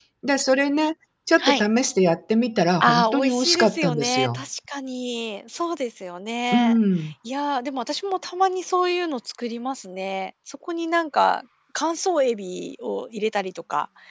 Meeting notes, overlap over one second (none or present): present